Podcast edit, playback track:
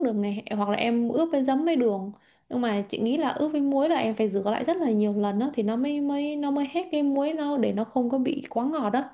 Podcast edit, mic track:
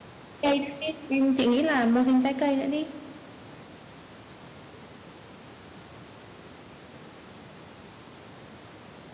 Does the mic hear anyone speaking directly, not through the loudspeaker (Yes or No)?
Yes